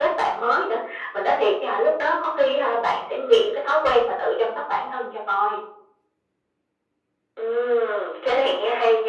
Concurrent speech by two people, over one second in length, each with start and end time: none

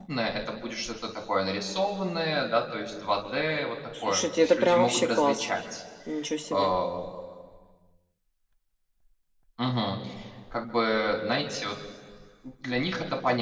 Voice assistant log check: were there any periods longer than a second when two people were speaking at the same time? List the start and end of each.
4.1-5.5

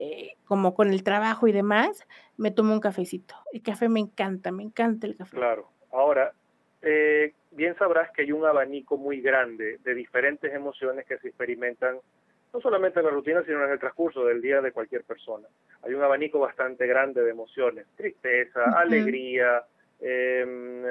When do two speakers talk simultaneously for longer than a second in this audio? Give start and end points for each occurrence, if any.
none

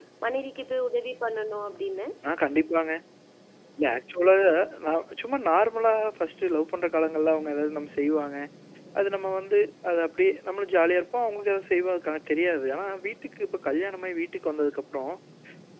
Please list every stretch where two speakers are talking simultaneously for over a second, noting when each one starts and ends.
none

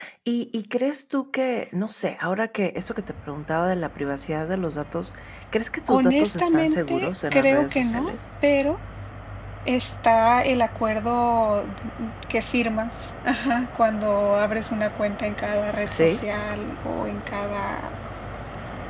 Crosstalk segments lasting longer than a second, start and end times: 5.9-8.1

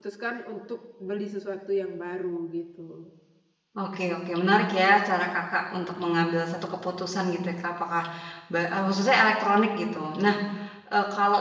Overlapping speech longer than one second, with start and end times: none

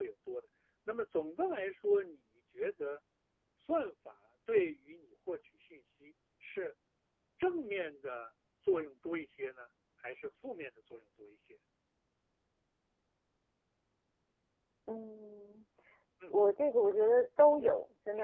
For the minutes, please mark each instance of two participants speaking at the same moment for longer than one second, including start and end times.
none

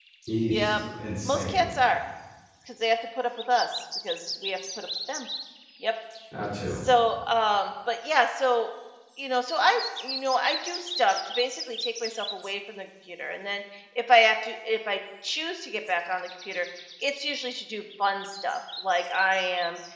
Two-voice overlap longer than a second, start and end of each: none

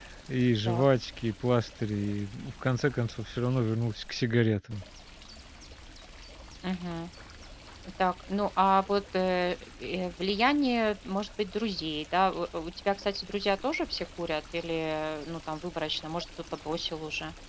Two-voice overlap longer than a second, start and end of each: none

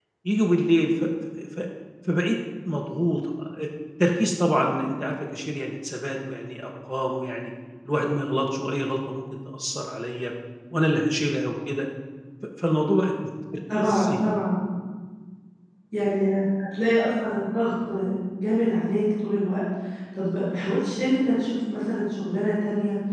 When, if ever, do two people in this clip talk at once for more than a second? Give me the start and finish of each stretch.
none

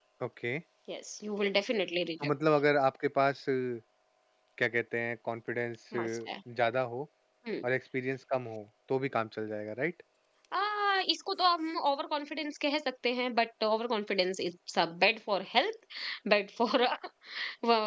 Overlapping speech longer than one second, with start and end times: none

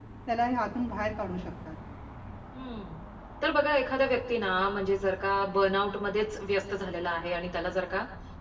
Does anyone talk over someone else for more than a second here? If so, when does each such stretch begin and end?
none

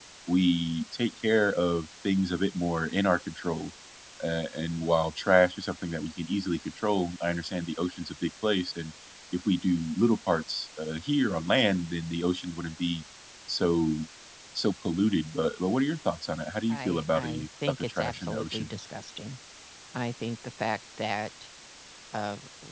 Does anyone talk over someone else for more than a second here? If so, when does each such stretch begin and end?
16.7-18.7

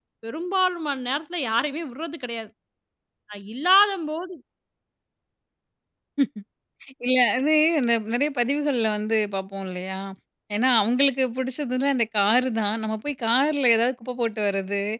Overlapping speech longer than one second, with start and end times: none

